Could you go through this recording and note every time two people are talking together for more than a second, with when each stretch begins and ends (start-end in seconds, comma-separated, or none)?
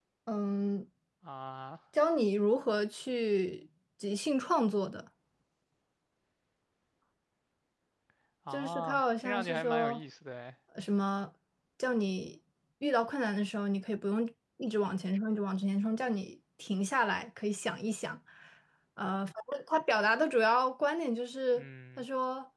8.5-10.0